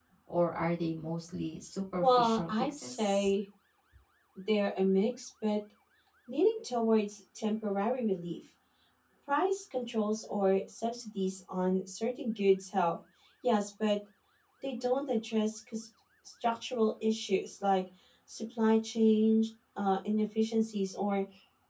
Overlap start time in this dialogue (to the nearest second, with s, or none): 2 s